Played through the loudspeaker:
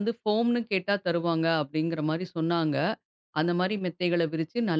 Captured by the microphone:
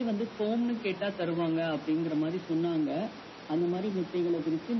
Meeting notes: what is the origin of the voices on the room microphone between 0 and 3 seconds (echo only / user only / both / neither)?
echo only